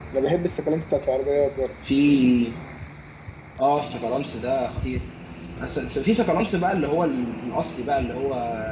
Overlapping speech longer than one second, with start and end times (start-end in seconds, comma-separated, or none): none